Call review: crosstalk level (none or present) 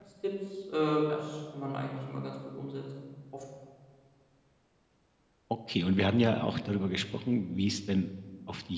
none